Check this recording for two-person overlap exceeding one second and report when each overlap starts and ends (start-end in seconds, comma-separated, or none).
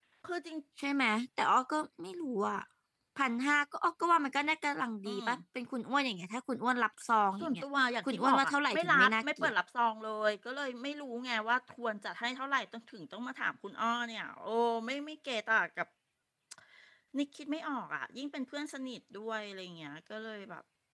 8.1-9.5